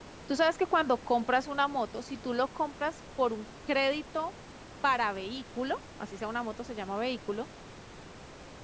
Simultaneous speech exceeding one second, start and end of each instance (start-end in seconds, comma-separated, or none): none